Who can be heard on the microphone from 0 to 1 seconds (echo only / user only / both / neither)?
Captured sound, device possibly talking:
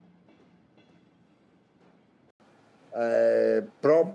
neither